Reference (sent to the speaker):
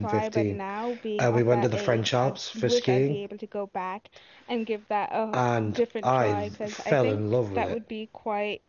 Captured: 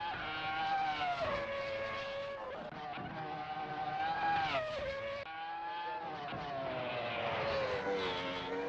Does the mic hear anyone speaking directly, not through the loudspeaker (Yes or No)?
No